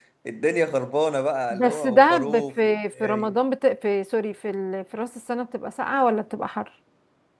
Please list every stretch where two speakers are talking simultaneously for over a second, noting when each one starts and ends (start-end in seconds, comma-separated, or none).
1.5-3.3